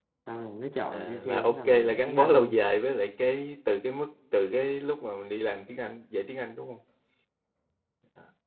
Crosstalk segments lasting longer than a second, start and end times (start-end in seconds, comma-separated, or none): 0.9-2.7